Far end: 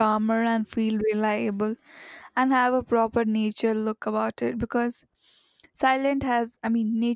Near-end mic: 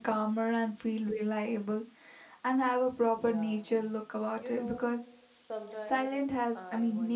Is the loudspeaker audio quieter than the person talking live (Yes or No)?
No